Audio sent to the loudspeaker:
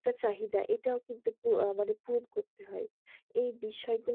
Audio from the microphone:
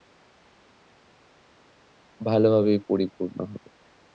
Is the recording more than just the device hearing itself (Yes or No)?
Yes